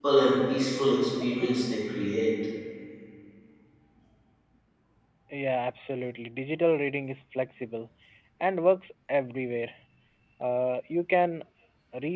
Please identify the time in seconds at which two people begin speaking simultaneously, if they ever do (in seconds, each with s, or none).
none